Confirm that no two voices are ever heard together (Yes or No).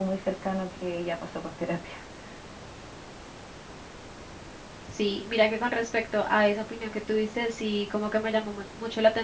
Yes